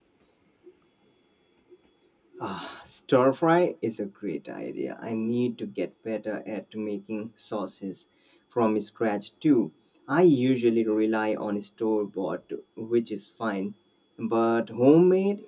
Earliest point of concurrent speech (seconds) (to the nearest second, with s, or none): none